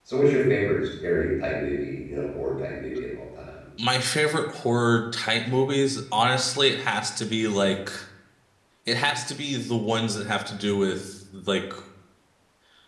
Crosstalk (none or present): none